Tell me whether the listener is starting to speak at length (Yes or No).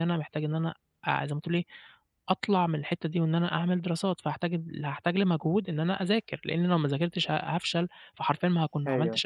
No